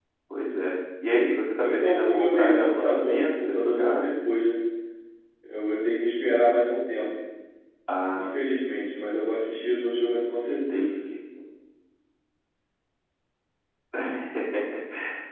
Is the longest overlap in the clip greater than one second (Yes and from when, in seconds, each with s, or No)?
Yes, from 1.6 s